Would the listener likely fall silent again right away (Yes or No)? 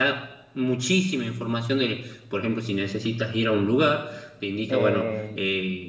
Yes